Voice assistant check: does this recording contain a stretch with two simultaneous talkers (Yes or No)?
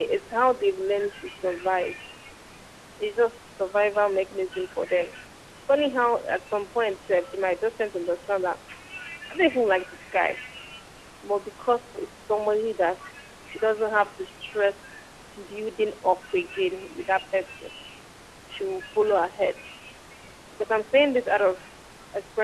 No